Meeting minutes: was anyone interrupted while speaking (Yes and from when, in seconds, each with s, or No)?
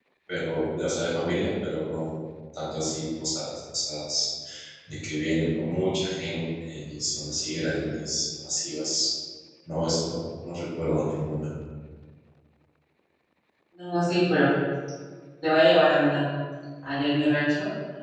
No